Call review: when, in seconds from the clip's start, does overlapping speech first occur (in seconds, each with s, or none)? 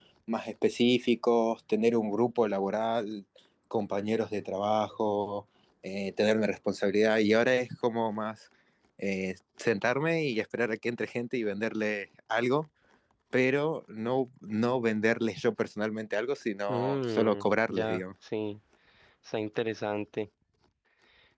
16.7 s